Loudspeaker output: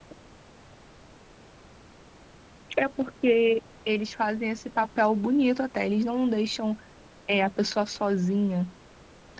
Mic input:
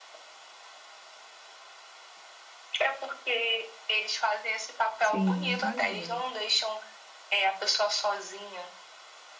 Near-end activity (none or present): present